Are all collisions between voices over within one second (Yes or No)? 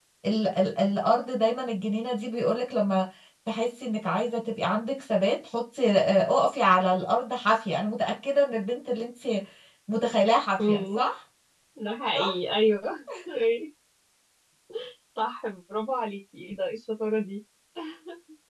Yes